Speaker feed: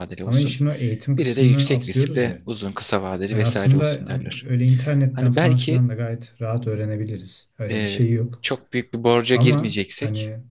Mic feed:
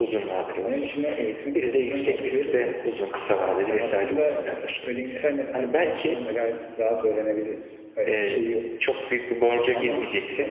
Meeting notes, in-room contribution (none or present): none